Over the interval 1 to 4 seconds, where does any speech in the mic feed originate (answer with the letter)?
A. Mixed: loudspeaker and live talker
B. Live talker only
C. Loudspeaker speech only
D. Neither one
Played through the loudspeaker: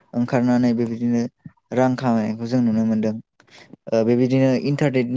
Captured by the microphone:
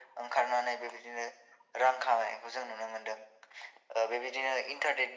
C